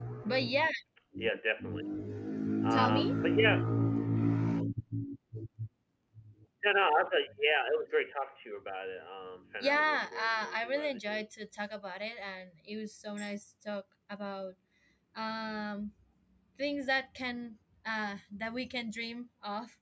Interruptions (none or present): present